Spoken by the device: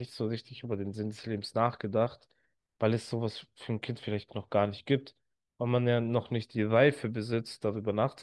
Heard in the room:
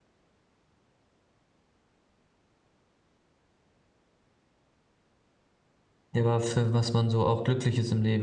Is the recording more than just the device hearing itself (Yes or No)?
Yes